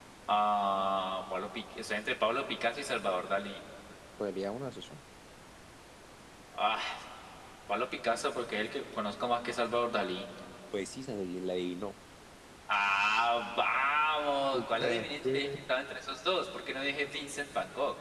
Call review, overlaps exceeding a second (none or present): present